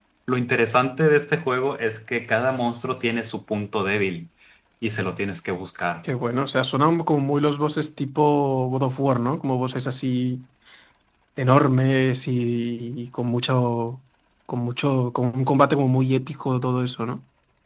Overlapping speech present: No

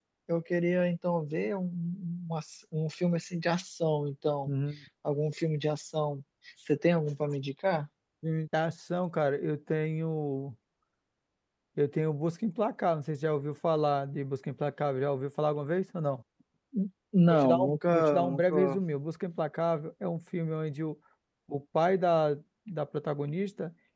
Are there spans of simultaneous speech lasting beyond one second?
Yes, from 17.3 s

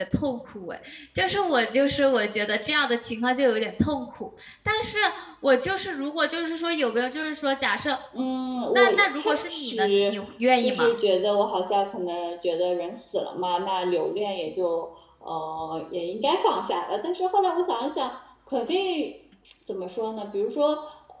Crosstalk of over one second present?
Yes, from 8.7 s

